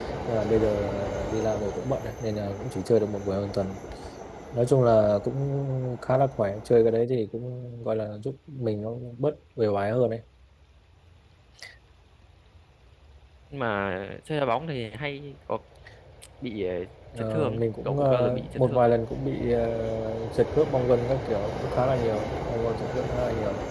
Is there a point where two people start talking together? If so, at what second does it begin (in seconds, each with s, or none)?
17.2 s